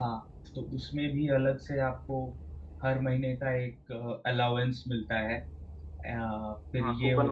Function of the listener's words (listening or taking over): taking over